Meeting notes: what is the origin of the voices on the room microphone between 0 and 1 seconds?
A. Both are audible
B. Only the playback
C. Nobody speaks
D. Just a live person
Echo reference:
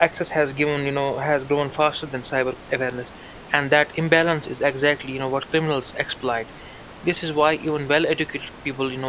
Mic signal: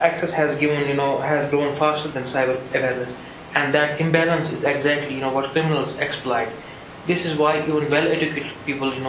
B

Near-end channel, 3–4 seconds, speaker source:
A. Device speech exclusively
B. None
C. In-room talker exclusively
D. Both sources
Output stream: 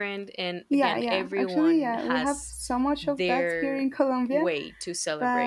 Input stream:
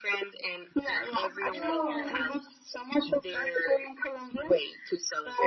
A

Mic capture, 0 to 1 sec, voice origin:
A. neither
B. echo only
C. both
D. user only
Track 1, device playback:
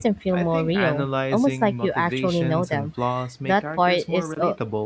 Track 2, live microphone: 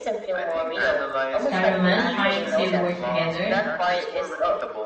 B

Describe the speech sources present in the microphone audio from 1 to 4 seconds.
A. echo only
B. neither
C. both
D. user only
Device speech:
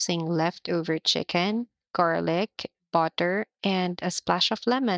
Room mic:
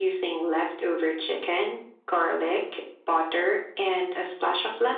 A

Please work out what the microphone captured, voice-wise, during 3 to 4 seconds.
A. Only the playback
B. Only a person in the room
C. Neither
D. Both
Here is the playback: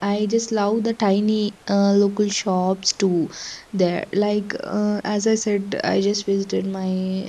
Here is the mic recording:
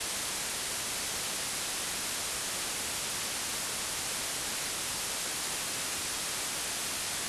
C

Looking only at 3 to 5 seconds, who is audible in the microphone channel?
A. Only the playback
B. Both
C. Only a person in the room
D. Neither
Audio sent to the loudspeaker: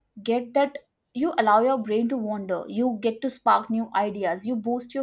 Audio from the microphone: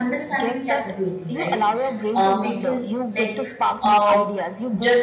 B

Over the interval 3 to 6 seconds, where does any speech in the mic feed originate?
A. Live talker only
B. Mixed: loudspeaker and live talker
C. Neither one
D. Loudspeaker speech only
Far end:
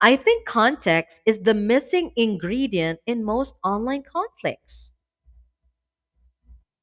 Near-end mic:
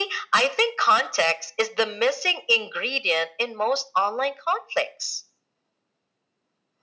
D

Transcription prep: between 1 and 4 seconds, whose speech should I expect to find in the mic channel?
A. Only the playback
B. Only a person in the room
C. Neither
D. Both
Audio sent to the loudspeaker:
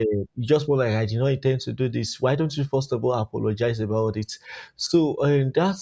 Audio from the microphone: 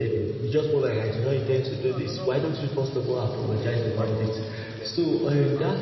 D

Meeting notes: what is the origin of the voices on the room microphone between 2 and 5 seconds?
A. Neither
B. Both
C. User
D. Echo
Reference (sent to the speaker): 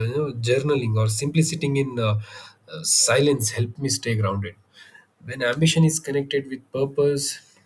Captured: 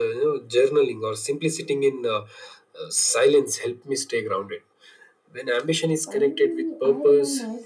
D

